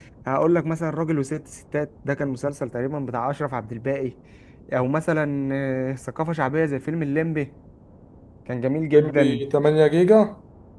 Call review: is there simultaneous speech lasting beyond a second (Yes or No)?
No